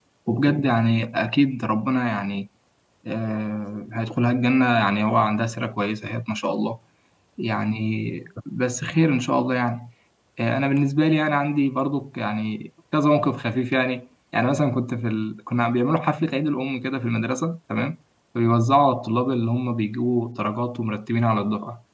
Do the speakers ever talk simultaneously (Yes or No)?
No